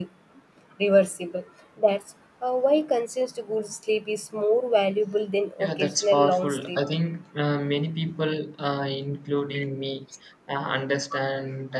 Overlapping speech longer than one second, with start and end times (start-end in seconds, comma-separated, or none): 5.6-6.8